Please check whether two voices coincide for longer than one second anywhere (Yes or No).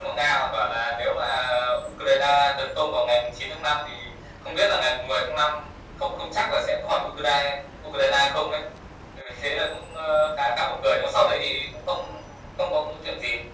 No